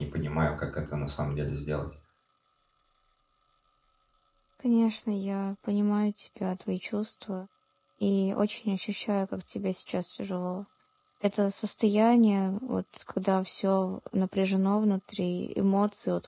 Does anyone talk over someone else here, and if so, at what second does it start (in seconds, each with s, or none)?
none